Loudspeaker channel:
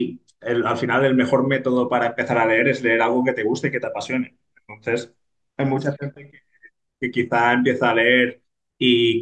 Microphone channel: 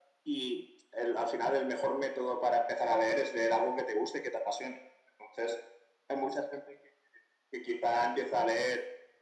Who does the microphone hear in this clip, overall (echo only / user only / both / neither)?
echo only